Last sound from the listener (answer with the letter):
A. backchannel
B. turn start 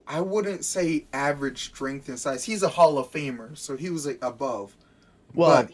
A